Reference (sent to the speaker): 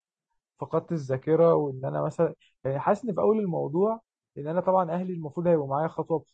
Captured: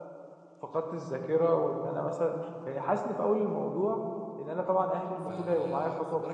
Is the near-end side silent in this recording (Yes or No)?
No